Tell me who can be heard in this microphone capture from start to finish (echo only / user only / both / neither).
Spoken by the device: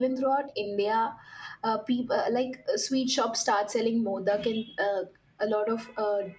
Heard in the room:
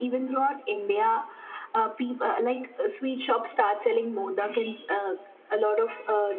echo only